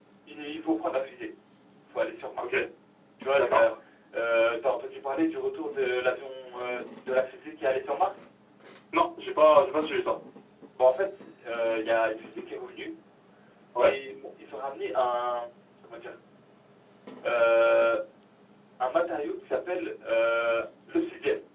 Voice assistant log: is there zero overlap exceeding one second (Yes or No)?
Yes